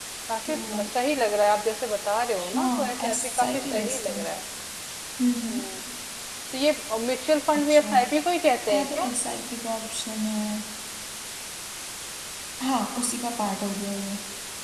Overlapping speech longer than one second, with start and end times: 2.5-4.2

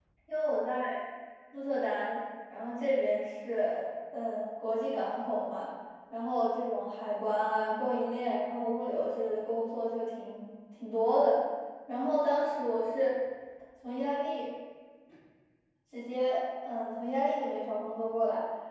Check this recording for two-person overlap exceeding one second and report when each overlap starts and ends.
none

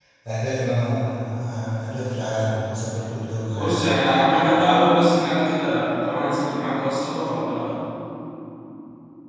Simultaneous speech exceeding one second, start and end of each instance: none

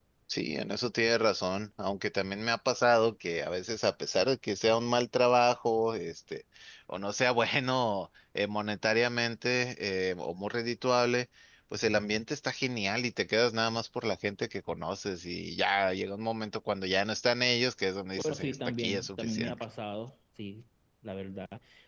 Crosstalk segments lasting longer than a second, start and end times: 18.1-19.6

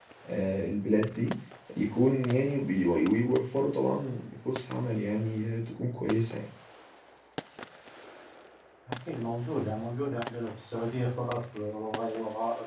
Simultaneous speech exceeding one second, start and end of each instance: none

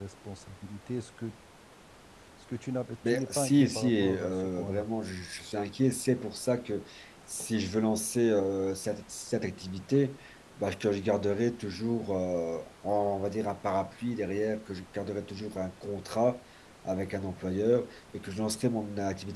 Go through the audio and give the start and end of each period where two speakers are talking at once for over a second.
3.0-4.8

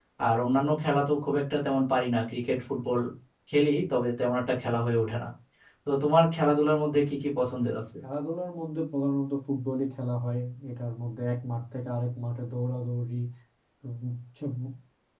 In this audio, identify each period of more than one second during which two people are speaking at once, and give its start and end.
none

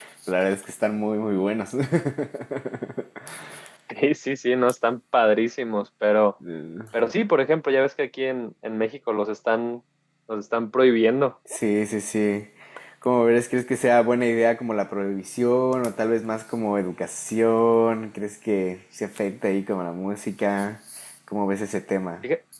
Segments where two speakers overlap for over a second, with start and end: none

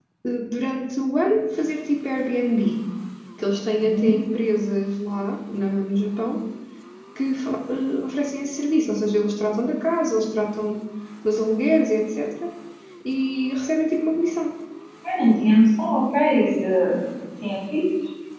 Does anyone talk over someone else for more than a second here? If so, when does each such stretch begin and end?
none

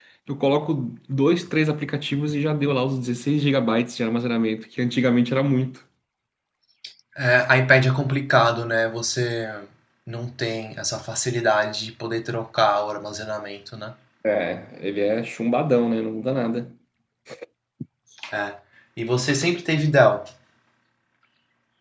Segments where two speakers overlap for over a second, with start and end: none

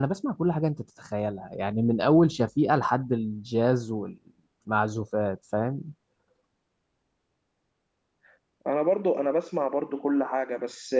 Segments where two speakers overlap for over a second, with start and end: none

